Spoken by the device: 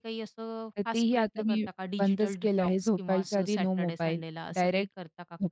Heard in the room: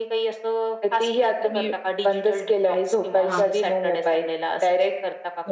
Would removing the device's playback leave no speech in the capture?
No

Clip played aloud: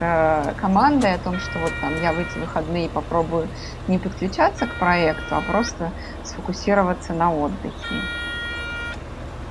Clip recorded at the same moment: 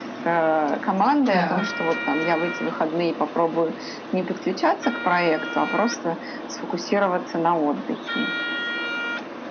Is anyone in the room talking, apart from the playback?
Yes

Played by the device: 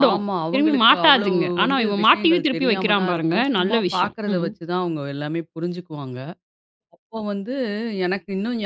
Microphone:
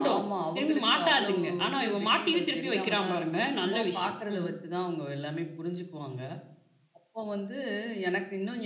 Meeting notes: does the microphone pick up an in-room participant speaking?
No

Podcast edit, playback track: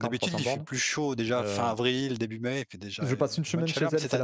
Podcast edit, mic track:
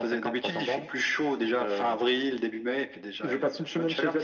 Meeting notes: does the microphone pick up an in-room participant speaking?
No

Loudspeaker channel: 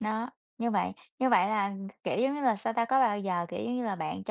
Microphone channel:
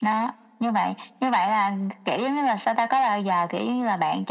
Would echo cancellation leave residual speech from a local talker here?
No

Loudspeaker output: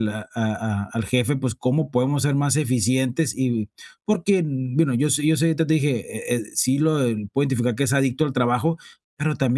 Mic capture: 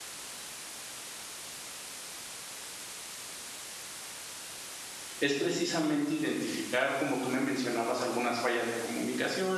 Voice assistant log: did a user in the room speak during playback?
Yes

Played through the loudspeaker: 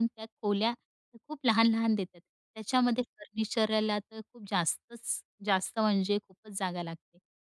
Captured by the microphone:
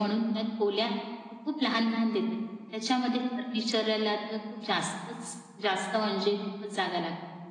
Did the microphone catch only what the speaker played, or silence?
Yes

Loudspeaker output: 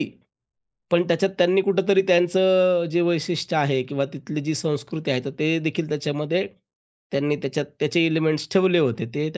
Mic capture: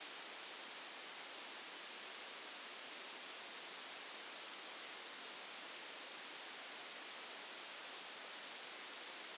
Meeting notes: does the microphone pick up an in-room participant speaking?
No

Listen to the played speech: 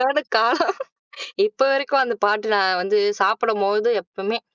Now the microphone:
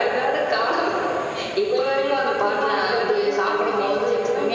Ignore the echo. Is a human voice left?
Yes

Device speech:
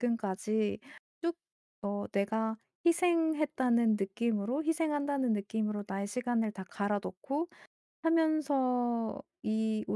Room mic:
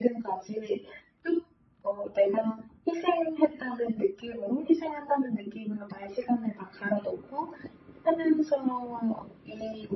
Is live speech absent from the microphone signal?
Yes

